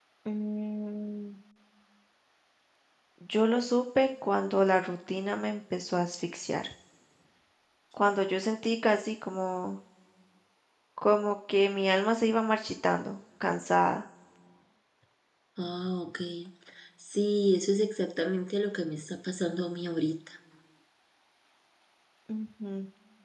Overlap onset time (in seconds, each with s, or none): none